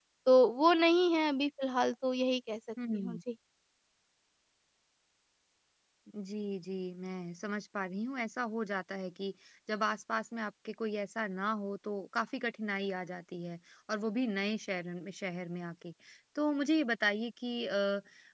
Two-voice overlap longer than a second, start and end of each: none

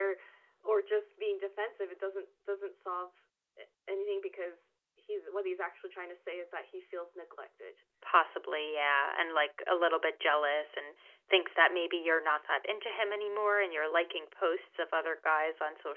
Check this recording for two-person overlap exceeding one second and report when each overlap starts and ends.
none

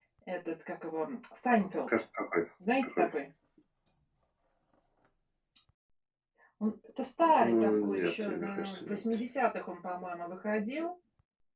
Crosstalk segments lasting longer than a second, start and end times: 7.4-9.0

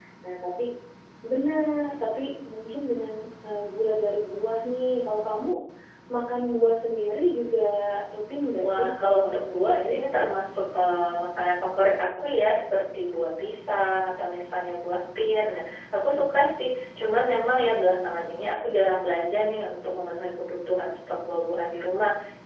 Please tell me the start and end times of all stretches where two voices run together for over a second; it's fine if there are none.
8.6-9.9

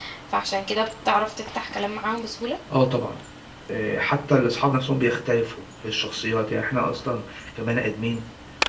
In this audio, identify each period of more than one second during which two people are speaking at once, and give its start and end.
none

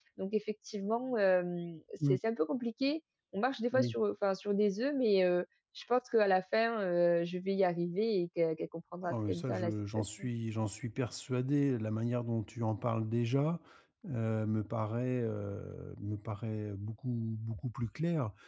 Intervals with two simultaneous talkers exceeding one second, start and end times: 9.0-10.3

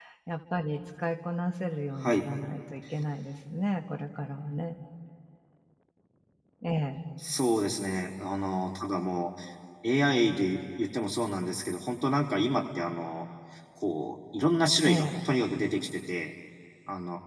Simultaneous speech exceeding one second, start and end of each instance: none

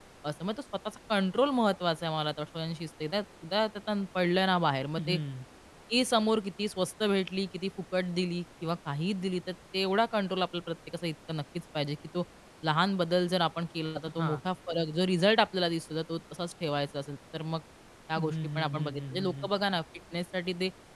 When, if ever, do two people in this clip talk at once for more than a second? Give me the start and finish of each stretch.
18.2-19.5

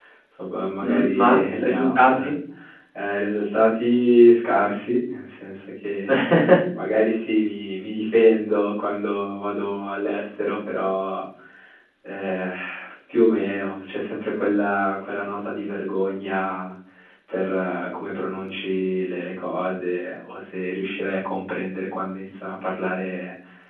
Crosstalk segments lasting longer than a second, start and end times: 0.8-2.1

